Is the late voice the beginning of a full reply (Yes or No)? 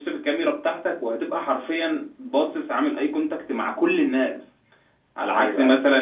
No